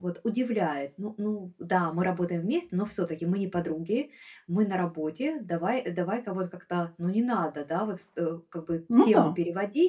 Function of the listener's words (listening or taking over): listening